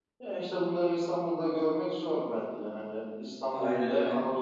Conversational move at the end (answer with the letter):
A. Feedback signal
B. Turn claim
A